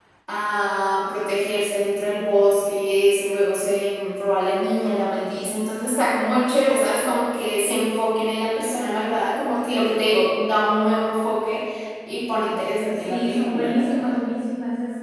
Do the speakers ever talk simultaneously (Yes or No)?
Yes